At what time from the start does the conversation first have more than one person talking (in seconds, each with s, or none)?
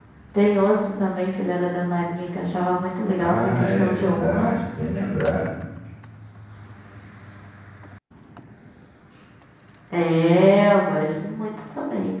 3.2 s